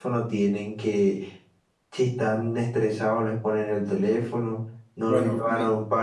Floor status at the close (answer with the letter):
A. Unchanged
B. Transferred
A